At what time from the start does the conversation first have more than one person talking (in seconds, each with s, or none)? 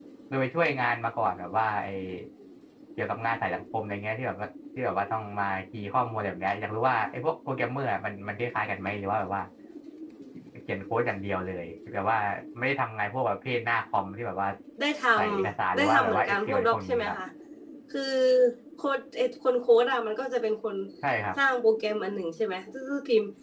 15.4 s